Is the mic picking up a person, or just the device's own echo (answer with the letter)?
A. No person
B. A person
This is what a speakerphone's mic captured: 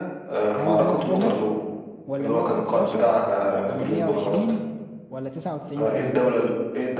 B